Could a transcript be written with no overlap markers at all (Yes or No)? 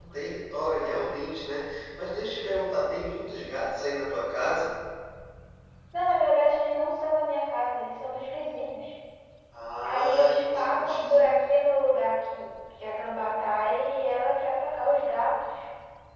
No